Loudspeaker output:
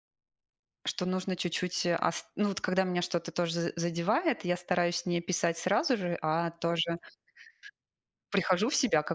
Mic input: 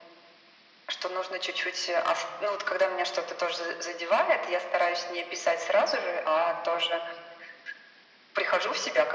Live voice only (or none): none